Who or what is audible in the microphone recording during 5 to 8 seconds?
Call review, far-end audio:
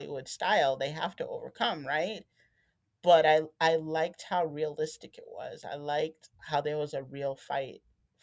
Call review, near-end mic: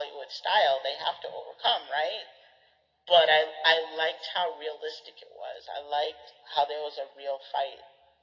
echo only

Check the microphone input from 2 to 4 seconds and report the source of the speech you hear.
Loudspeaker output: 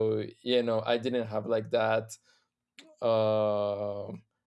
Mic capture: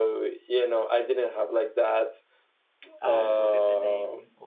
both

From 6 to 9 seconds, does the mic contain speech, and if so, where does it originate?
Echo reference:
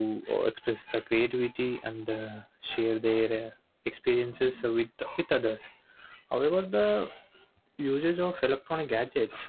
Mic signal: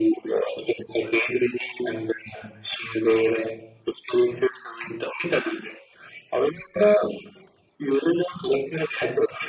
echo only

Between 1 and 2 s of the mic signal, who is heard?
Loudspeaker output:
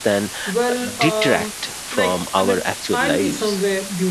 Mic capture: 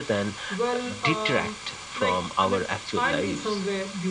echo only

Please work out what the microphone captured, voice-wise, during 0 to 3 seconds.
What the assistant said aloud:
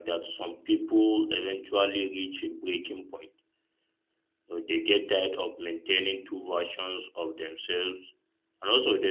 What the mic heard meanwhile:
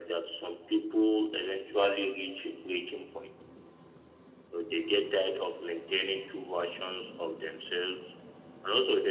echo only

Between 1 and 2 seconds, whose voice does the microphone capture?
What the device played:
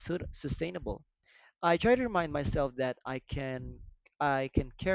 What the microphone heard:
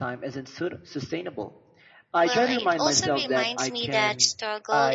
echo only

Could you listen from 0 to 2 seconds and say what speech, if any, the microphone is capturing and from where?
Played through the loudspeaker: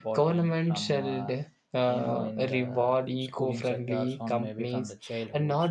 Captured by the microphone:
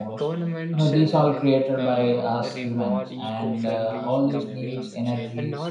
both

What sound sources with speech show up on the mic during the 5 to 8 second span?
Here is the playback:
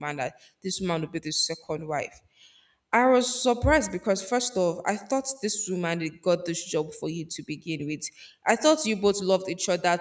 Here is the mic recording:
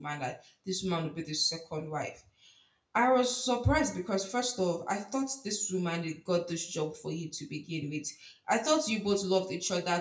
echo only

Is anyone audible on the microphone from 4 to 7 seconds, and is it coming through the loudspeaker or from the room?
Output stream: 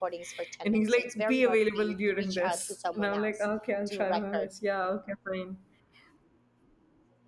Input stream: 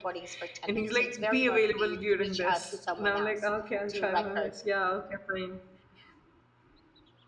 echo only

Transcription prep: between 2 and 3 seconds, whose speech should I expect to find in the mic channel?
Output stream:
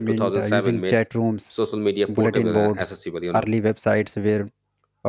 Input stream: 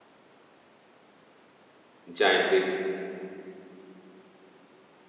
user only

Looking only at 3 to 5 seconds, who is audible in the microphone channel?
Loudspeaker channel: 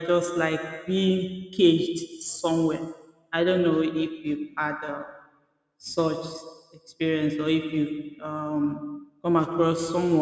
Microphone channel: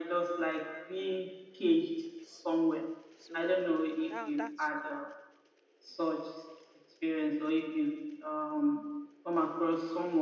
both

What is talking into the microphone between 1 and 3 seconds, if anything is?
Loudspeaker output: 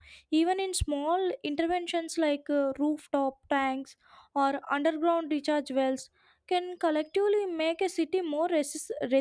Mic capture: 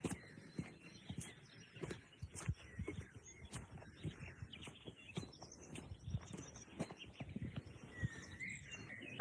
neither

